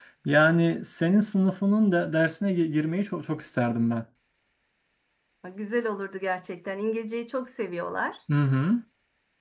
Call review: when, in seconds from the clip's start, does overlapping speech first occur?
none

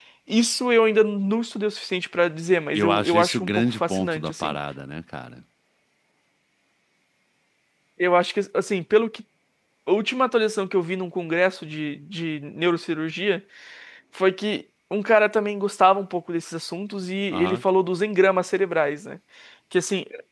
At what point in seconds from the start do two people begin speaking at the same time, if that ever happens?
2.8 s

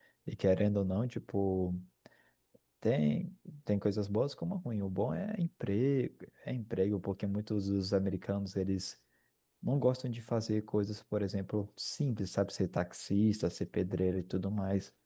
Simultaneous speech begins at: none

